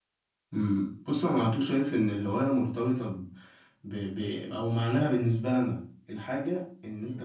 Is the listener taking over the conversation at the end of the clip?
No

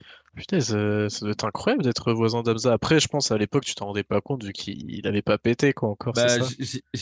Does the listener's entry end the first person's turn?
Yes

